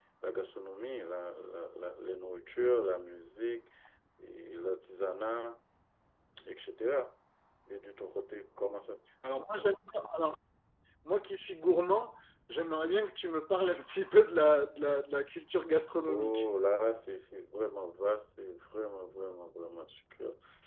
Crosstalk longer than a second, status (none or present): none